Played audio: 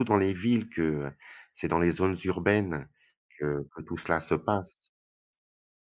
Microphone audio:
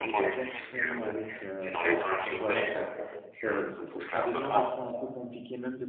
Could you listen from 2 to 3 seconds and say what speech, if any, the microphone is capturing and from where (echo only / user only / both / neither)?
both